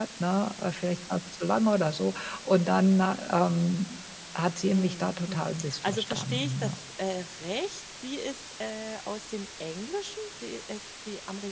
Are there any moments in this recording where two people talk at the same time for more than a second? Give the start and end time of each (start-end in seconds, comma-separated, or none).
4.7-6.8